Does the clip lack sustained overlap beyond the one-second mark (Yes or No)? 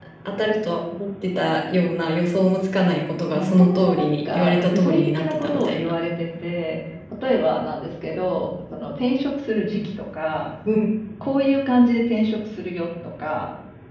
No